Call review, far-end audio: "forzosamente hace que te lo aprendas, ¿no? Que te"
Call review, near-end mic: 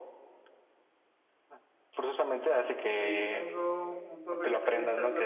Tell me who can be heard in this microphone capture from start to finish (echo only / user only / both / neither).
both